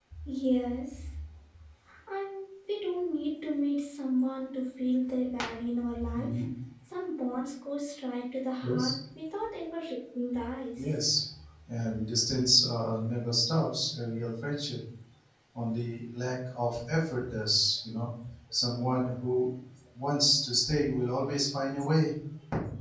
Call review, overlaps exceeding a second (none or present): none